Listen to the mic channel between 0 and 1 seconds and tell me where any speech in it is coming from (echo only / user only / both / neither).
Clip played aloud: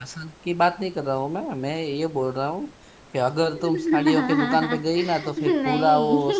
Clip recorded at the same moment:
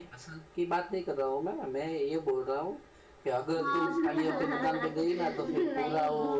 echo only